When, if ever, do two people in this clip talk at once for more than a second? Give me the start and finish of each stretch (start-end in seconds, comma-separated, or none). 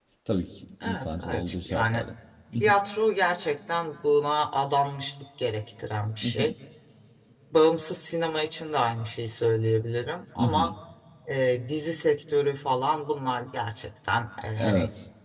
0.8-2.0